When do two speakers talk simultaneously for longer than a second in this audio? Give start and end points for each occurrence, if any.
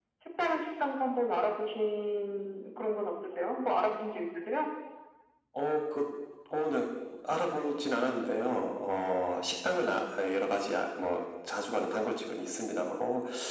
none

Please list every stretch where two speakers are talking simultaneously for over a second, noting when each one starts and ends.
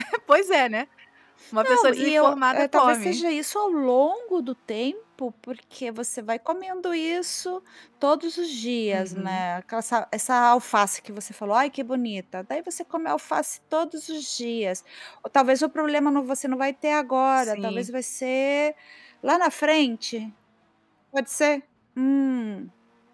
1.6-3.2

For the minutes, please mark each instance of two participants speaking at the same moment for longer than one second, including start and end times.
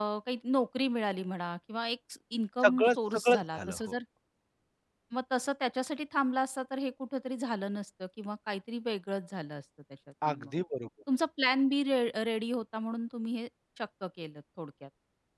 2.6-4.0

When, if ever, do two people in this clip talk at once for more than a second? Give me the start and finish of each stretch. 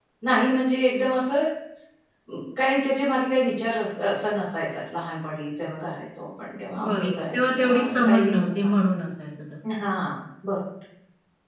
6.9-8.7

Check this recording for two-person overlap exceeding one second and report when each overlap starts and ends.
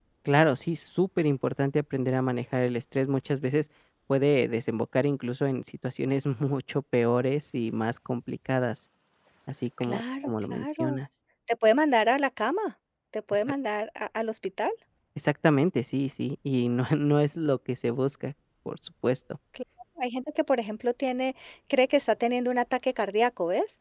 9.8-11.0

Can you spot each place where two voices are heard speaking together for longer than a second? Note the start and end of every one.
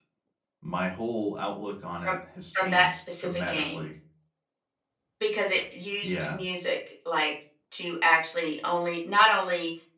2.5-3.8

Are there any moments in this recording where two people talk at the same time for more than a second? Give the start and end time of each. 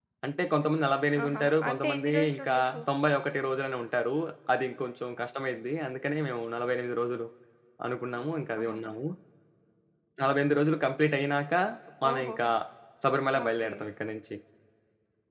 1.2-2.8

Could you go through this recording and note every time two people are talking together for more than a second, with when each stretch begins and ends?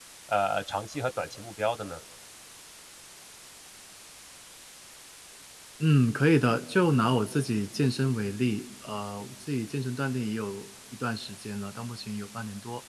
none

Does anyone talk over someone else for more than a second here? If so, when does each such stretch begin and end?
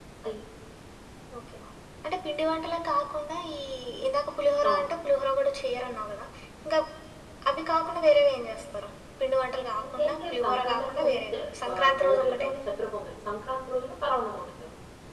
9.9-12.5

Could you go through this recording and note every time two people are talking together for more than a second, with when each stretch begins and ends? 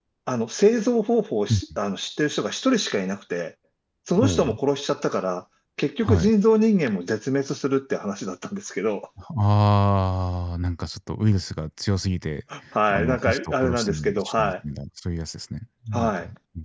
12.9-14.5

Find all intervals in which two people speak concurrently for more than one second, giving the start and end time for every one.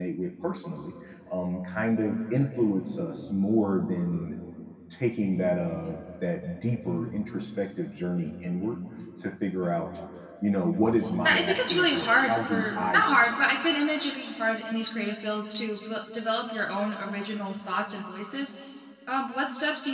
11.2-13.3

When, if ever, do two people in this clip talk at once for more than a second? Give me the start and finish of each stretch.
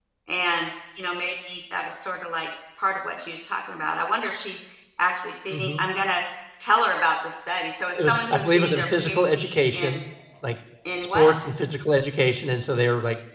8.0-10.0

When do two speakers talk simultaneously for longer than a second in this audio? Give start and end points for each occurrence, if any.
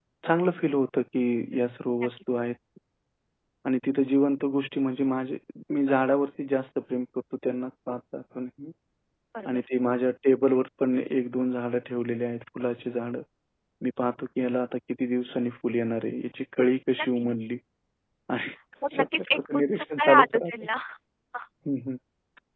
18.9-20.5

